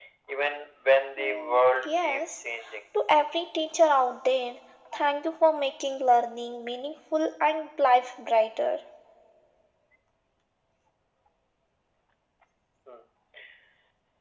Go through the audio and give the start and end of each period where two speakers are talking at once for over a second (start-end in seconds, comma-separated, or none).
1.2-2.4